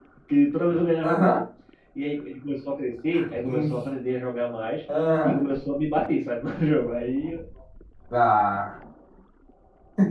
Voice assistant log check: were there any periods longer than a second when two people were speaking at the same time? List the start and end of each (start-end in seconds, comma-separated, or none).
none